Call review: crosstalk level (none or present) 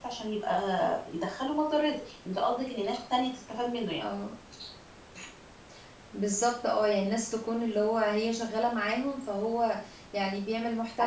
none